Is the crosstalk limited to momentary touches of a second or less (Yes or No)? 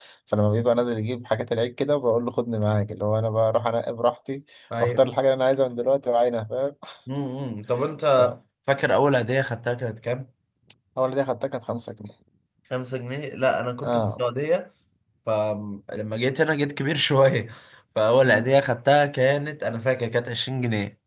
Yes